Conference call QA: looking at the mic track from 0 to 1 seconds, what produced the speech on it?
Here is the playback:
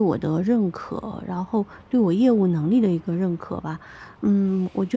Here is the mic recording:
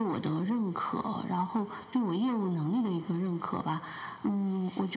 echo only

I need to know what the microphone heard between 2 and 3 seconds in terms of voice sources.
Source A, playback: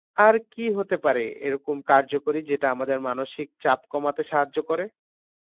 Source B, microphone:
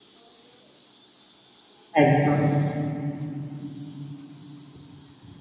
user only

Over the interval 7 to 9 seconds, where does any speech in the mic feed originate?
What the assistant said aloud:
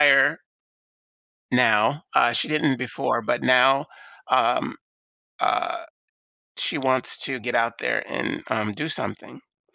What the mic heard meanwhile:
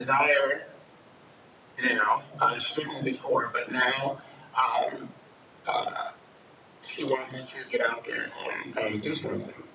echo only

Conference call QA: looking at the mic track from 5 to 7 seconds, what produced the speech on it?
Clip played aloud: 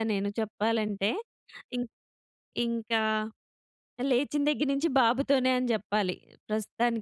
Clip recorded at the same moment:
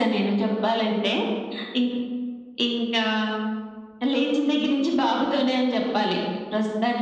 echo only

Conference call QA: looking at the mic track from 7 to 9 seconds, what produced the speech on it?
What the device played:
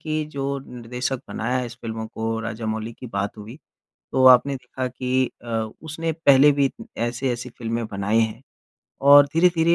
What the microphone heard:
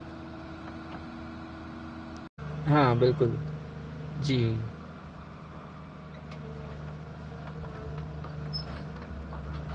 neither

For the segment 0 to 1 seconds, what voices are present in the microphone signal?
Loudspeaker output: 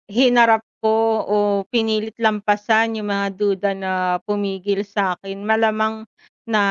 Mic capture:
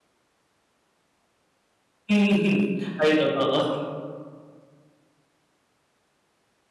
neither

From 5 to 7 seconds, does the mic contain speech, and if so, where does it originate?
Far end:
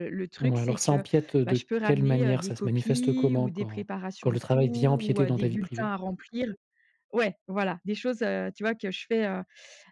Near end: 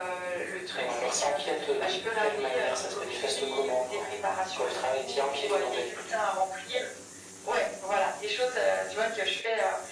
echo only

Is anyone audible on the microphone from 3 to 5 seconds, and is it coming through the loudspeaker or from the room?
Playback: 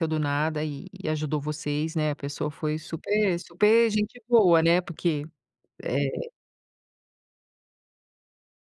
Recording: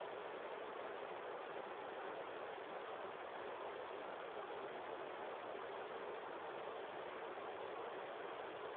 neither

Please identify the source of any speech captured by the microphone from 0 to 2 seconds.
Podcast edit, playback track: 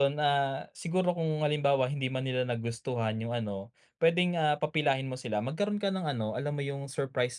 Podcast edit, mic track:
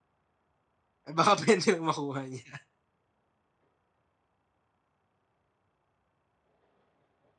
user only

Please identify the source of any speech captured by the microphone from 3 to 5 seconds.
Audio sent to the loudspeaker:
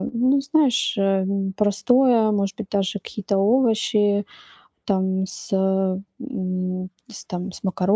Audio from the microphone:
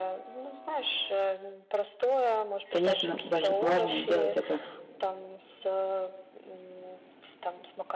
both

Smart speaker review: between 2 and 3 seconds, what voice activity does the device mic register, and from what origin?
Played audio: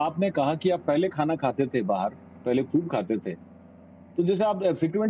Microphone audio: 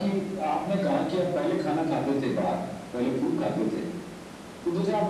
echo only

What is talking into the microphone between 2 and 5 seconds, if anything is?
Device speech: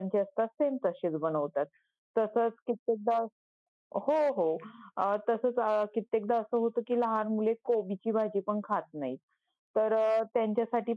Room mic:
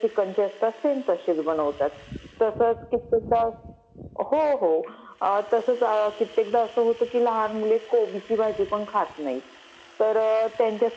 echo only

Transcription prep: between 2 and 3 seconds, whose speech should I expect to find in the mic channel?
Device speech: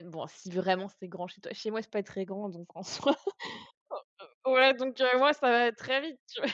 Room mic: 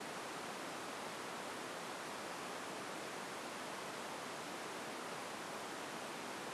neither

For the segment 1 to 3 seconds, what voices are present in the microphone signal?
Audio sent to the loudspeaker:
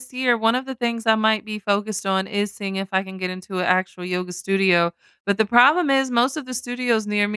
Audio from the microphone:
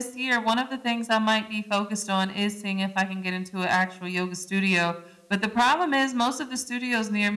echo only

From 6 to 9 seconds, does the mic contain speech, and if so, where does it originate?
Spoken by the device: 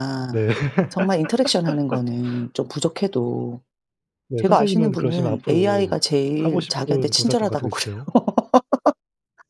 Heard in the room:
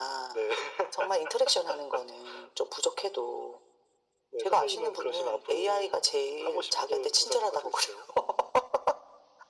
echo only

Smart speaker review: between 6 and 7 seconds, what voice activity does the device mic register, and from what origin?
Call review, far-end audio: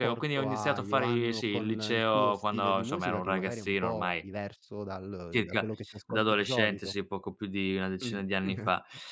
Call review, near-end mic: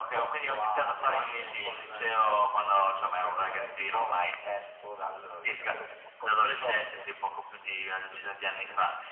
echo only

